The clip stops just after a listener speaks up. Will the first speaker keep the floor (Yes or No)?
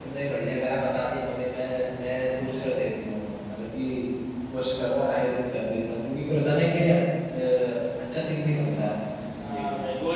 No